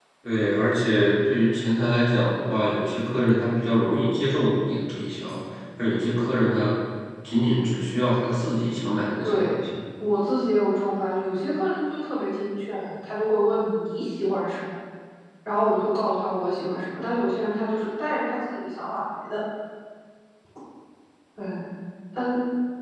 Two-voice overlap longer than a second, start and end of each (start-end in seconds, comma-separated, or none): none